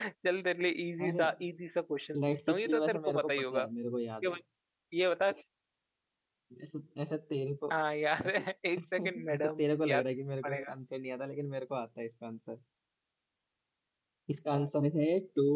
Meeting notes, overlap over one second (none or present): present